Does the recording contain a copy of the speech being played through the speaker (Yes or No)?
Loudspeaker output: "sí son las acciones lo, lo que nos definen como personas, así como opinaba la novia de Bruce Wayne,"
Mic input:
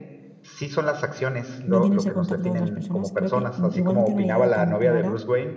Yes